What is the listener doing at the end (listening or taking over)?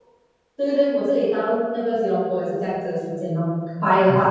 taking over